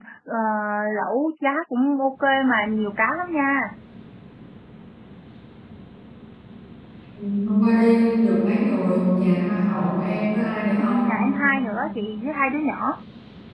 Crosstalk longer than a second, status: none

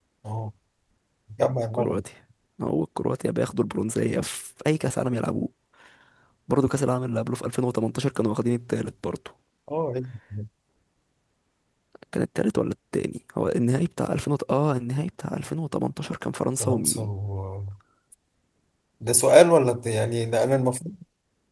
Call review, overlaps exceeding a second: none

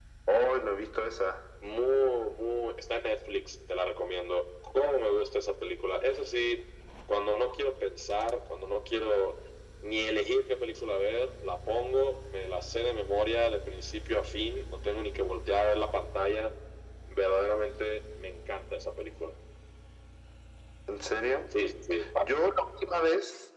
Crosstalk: none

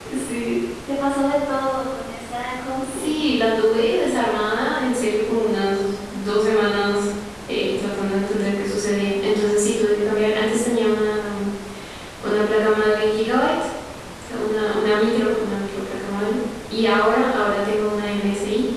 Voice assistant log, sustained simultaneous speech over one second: none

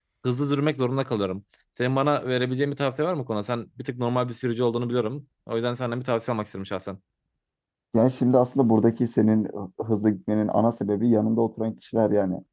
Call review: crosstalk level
none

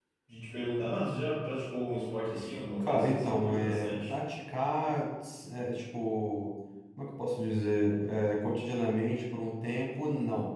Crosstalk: present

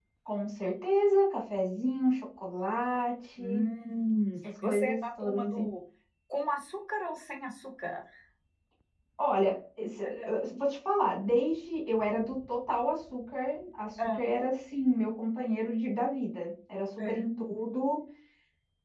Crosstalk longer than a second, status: present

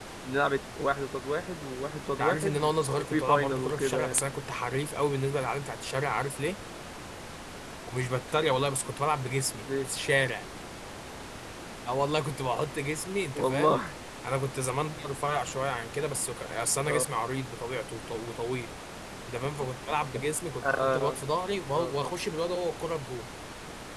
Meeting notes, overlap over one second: present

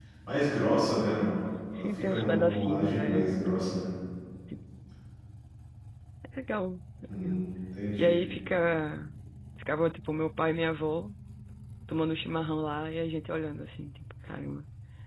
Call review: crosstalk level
present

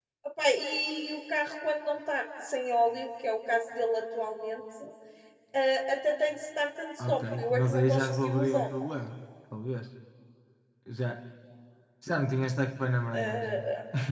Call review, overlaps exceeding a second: present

